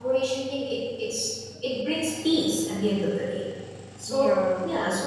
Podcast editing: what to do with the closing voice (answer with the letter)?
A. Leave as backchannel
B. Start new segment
A